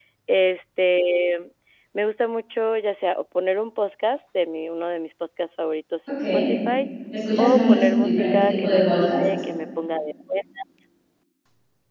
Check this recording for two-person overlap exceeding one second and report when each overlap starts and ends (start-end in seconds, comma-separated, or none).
7.4-9.2